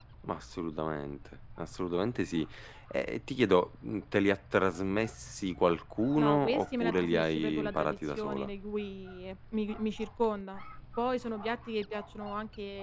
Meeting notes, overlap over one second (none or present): present